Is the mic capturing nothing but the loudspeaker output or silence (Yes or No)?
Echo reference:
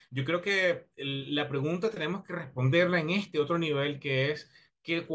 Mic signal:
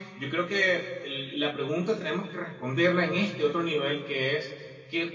Yes